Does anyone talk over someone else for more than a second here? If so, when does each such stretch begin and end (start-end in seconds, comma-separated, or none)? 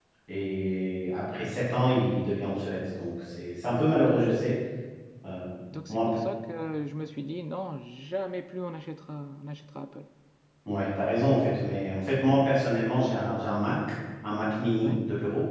none